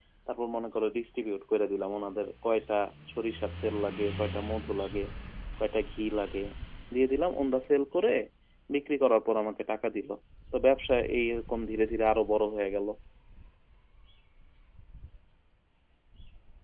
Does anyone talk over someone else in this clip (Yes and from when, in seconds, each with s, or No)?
No